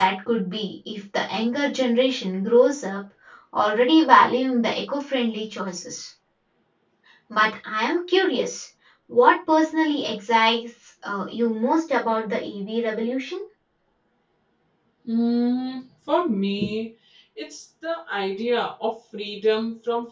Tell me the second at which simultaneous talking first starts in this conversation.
none

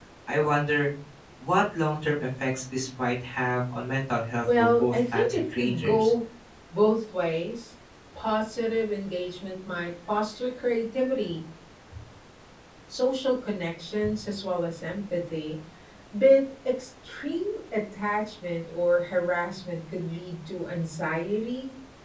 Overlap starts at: 4.4 s

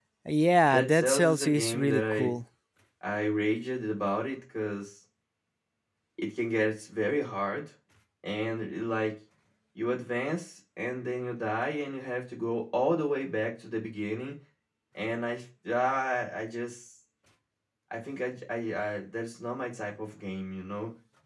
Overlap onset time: 0.7 s

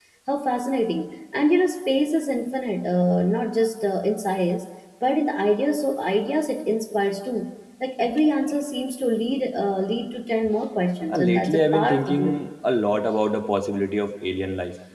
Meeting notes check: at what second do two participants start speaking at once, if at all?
11.1 s

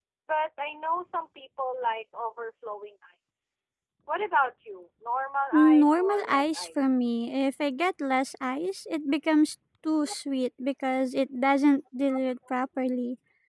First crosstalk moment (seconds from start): 5.5 s

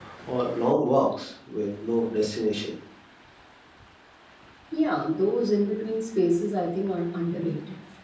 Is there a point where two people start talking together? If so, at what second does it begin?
none

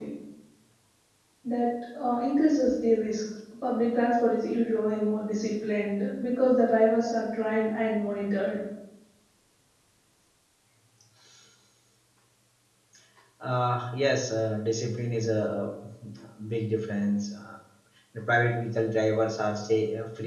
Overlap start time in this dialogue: none

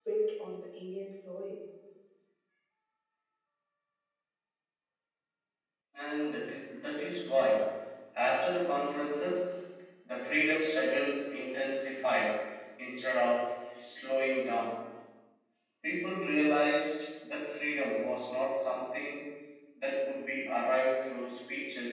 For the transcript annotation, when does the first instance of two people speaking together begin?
none

